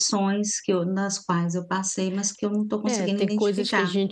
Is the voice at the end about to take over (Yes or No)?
Yes